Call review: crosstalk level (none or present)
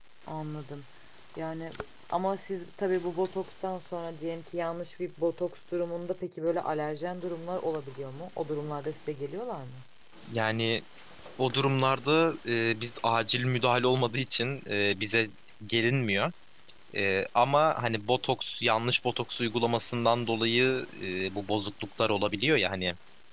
none